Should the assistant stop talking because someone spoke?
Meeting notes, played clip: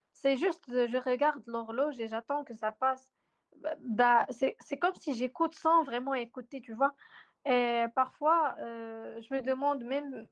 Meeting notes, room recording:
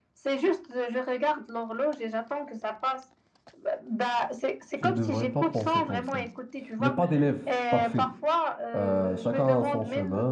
Yes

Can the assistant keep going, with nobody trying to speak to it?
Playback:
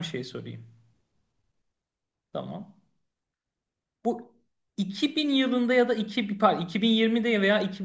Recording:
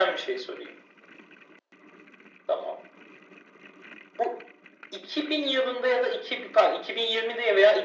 Yes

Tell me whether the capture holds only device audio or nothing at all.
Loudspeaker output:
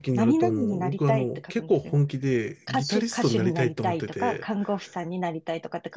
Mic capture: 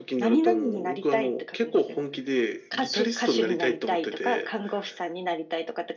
Yes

